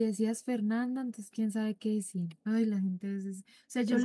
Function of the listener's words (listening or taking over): listening